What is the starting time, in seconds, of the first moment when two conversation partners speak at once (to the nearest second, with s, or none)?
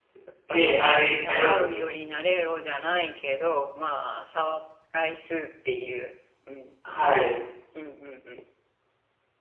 1 s